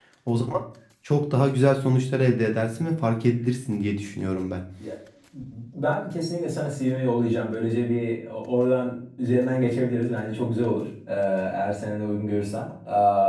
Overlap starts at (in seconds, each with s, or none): none